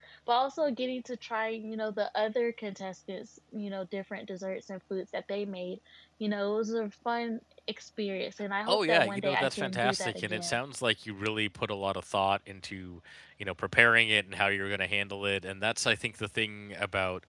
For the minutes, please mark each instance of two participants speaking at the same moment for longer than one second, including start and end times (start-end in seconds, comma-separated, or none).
8.7-10.6